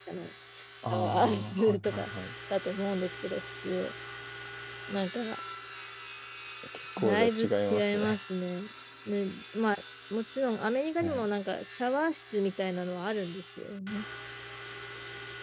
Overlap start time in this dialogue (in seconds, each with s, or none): 0.9 s